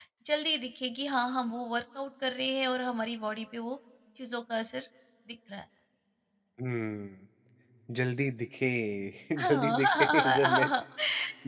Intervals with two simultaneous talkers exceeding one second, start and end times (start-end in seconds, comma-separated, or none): 9.5-10.7